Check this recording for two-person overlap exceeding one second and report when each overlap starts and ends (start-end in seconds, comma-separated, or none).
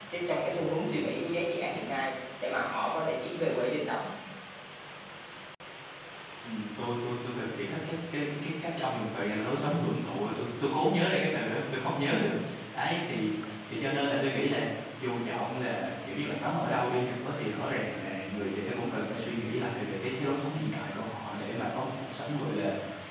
none